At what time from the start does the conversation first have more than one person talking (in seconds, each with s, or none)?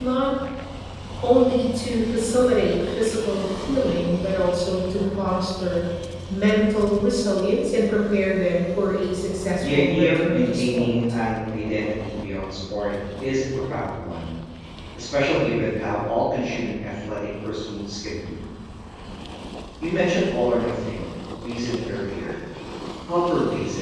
9.6 s